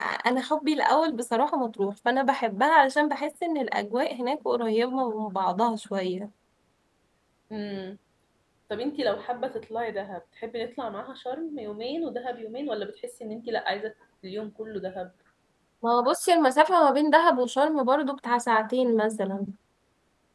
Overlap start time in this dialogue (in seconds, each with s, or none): none